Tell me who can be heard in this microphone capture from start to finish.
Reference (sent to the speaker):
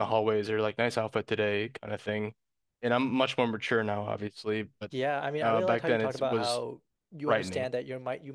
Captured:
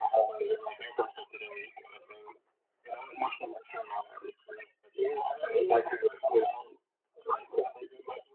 echo only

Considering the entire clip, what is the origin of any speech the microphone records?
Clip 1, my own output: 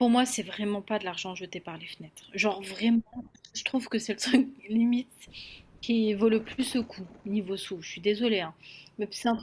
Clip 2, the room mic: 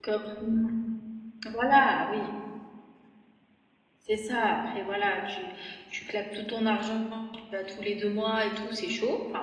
user only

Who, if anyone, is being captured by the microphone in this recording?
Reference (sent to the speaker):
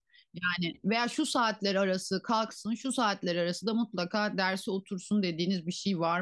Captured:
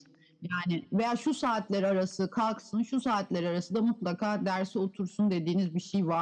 echo only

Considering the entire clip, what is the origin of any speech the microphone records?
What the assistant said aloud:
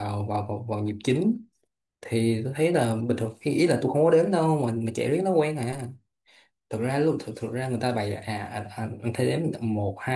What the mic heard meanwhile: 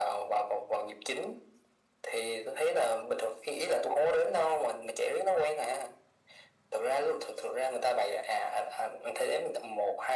echo only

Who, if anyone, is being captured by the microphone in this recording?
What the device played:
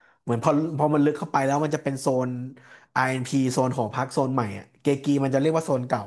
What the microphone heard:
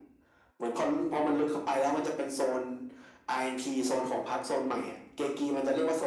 echo only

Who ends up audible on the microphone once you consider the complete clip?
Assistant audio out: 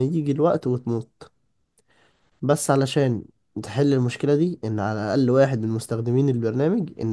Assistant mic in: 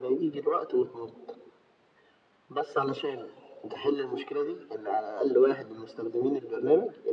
echo only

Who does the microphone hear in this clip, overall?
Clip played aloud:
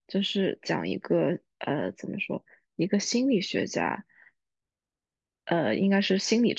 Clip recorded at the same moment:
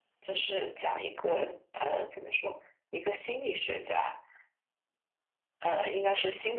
echo only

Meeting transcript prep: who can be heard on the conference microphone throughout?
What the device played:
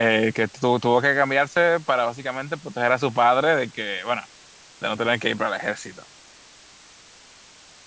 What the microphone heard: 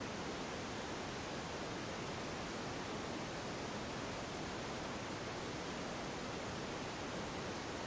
neither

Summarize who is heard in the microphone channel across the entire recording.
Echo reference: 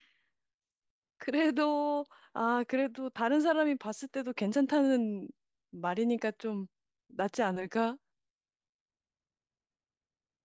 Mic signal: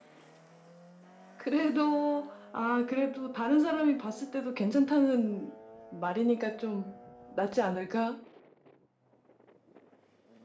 echo only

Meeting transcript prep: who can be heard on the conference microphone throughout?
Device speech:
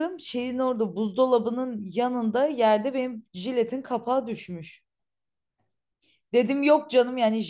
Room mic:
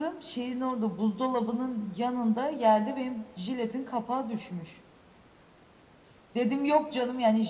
echo only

